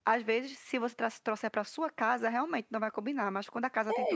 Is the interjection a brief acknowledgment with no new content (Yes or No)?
No